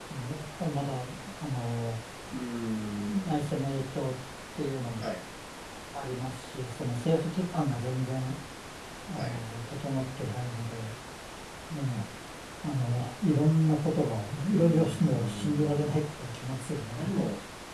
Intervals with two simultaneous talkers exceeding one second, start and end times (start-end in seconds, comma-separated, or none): 14.5-16.0